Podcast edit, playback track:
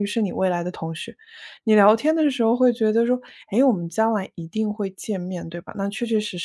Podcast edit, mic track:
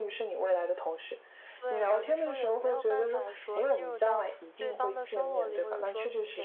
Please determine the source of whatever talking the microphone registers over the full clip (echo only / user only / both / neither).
both